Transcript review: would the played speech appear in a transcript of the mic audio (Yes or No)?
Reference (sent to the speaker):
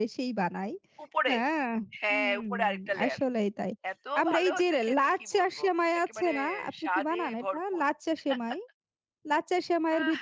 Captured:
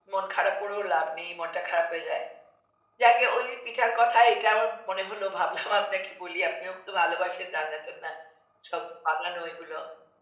No